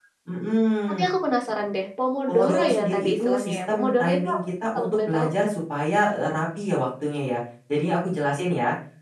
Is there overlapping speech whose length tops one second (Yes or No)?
Yes